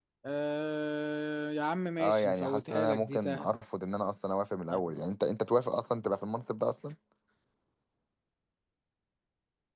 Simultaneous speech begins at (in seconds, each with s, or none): 2.0 s